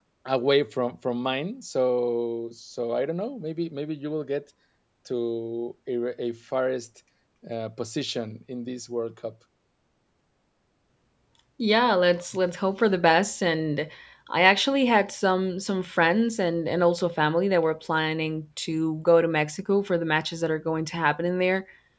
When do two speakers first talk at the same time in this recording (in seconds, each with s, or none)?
none